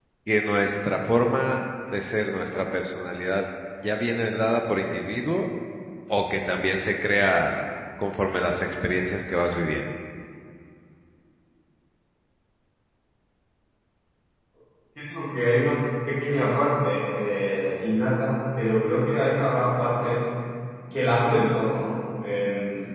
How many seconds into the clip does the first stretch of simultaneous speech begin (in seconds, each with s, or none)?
none